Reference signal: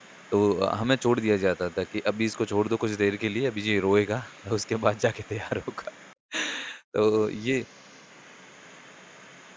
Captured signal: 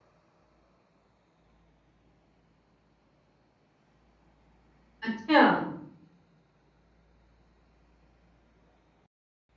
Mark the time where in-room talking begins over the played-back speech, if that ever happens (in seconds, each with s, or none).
5.1 s